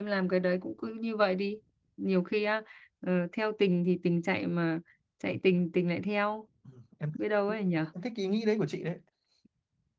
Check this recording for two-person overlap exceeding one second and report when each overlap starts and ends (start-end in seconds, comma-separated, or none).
none